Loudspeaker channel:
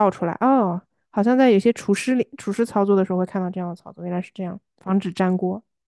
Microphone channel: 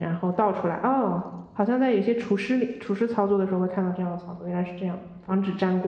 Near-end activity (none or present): none